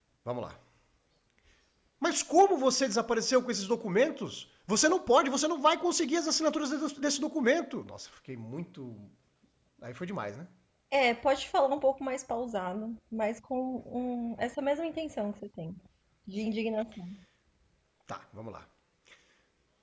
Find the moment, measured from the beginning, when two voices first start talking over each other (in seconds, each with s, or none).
none